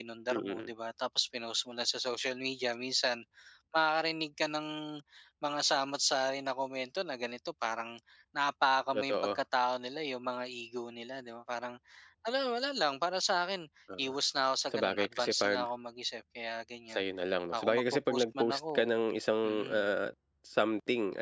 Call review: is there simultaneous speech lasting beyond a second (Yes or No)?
Yes